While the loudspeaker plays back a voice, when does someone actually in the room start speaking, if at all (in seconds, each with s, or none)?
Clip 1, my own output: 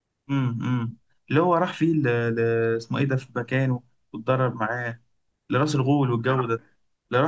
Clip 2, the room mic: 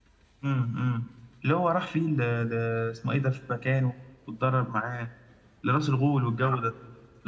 none